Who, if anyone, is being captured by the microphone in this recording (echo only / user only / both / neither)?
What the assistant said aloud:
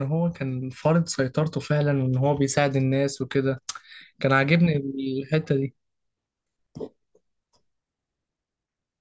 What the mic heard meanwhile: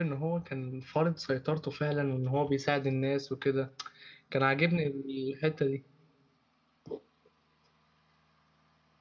echo only